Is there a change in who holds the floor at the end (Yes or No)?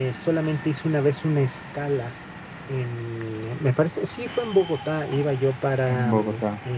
No